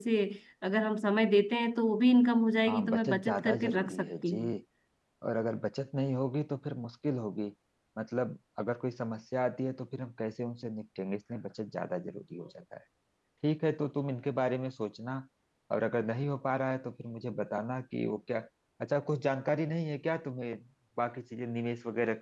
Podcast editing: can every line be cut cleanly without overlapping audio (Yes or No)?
No